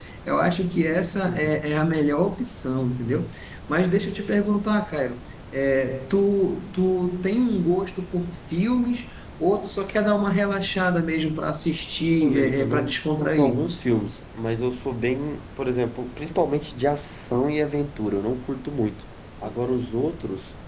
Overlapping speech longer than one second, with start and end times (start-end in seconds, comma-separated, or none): 12.2-13.6